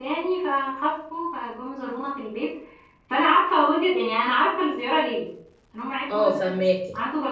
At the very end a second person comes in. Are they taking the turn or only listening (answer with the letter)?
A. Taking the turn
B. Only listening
B